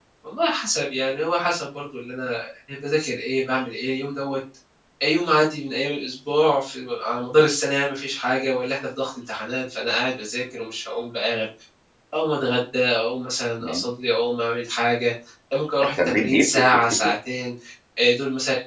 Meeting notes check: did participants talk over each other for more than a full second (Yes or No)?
Yes